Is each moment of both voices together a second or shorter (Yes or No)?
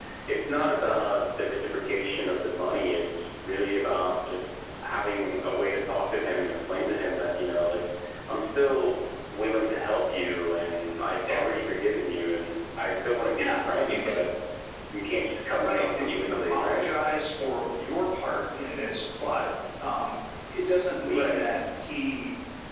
No